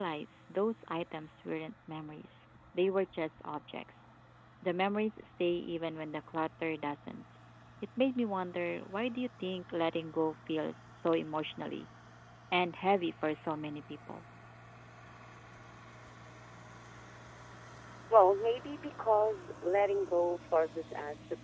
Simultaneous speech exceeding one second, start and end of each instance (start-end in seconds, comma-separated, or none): none